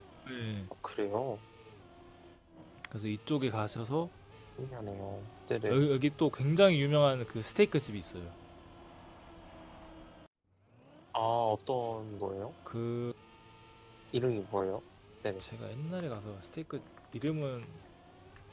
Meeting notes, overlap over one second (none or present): none